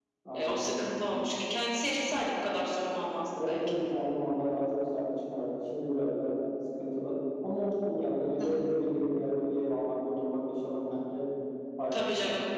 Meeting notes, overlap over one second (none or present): none